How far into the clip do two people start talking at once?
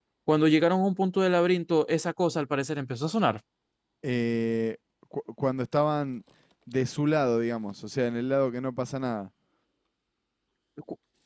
none

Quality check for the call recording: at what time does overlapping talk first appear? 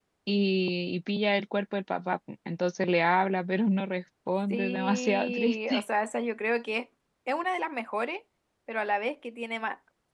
4.5 s

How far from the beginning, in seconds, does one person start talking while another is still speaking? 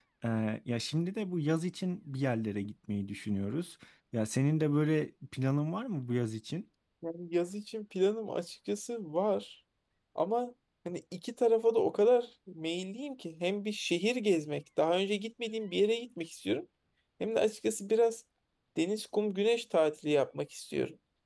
none

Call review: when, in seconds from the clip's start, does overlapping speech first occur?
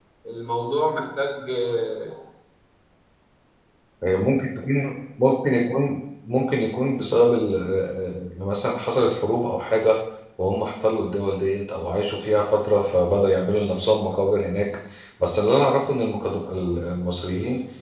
none

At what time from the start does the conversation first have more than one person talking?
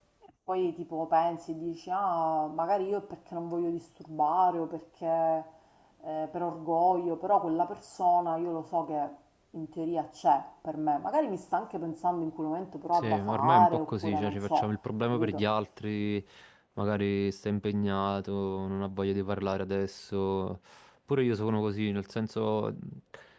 12.9 s

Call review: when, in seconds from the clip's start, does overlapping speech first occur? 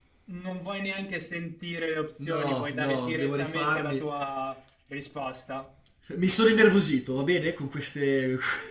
2.2 s

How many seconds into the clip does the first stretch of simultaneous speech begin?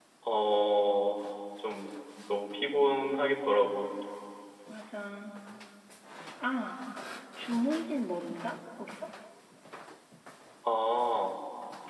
none

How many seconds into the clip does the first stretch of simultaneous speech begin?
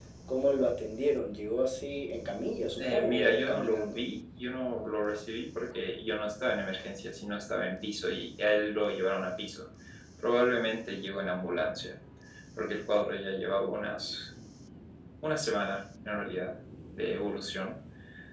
2.8 s

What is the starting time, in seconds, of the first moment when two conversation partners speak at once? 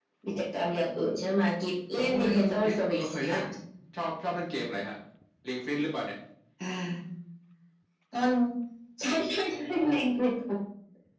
2.0 s

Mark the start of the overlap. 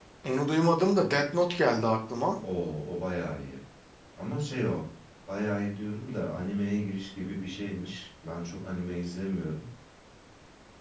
none

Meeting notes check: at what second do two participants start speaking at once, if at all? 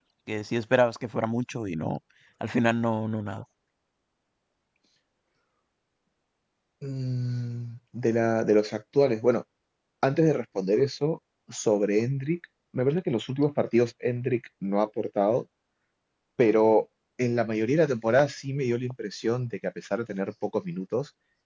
none

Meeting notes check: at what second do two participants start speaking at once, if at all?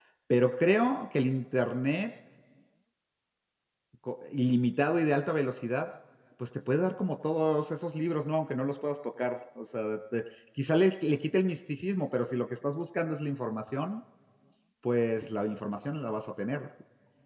none

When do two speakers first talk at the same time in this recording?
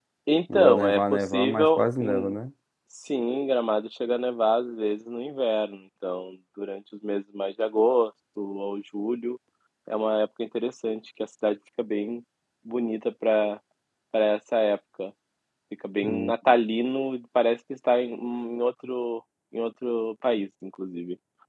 0.5 s

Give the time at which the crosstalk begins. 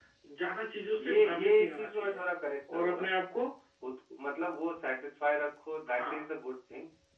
1.0 s

